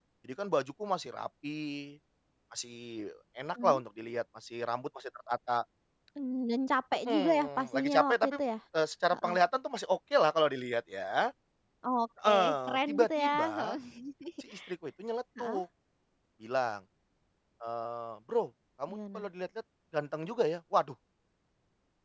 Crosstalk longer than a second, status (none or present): present